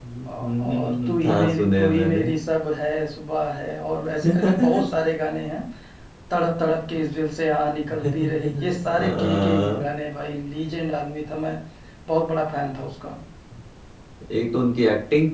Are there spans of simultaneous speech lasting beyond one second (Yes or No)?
Yes